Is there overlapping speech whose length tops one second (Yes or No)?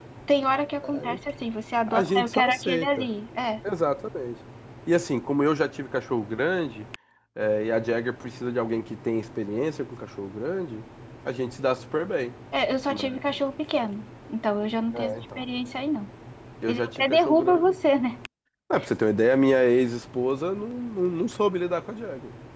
Yes